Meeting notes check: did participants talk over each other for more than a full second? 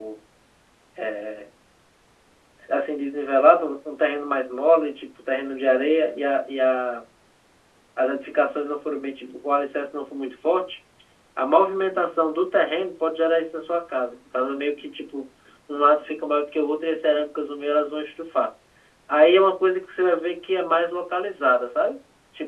No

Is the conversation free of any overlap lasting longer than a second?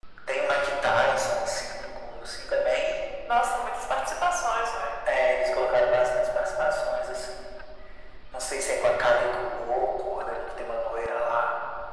Yes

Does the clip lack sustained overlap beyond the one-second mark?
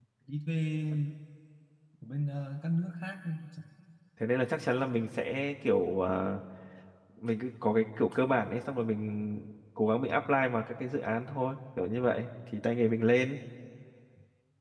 Yes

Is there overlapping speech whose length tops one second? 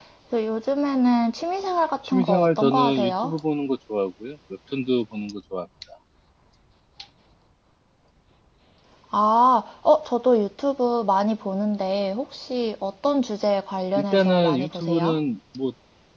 Yes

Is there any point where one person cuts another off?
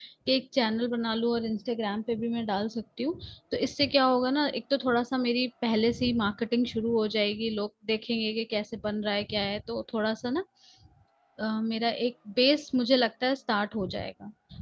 No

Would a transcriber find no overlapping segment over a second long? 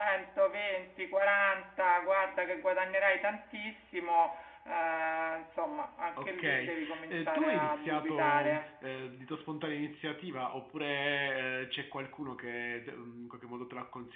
No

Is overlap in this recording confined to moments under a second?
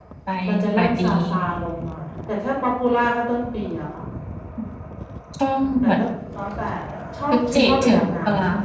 No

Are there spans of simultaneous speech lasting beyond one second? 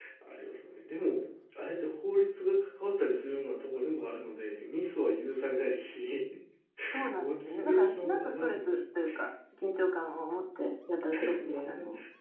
Yes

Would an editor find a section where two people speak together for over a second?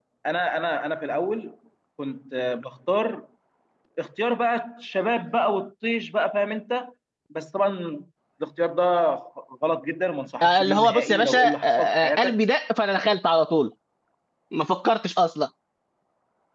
Yes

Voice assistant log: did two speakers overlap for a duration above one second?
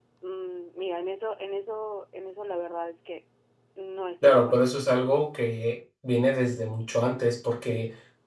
No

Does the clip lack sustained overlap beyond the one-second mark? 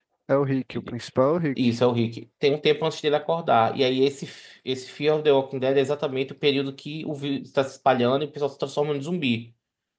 Yes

